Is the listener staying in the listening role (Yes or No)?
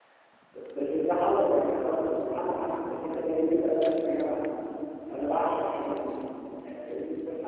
No